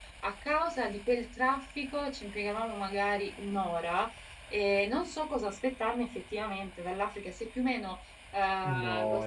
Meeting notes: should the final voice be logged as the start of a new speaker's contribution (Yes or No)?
Yes